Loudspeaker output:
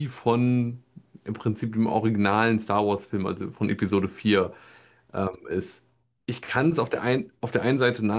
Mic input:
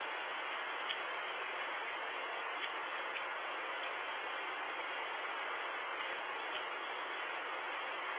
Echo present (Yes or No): No